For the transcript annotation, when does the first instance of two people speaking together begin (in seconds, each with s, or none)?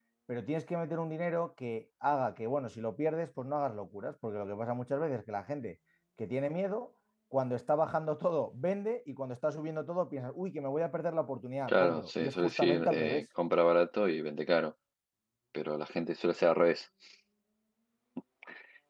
11.7 s